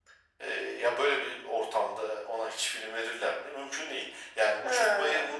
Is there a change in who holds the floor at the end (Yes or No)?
No